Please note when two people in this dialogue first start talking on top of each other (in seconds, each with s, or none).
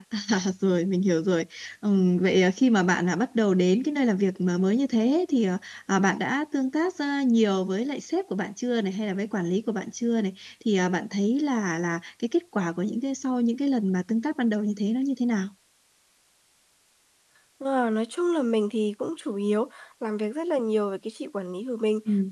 none